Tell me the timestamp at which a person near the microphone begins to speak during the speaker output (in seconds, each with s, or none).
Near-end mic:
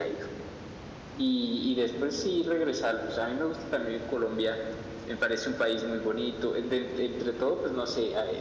none